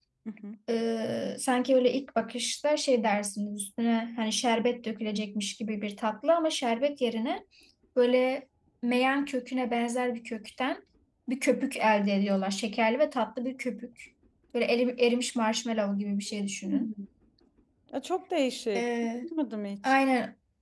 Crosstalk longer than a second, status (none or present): none